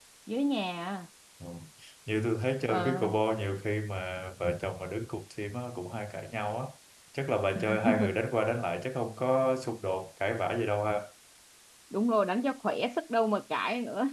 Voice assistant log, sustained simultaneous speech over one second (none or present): none